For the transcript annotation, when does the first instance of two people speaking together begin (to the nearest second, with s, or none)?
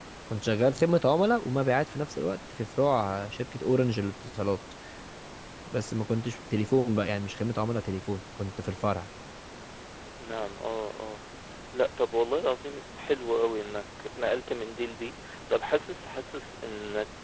none